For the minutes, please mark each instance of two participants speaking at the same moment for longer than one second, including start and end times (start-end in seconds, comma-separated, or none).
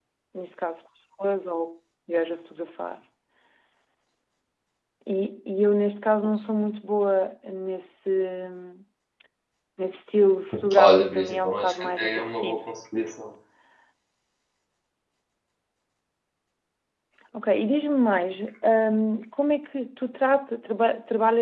10.8-12.6